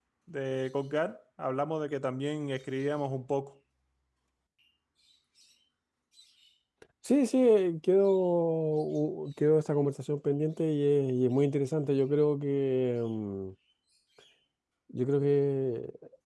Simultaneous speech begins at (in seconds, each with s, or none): none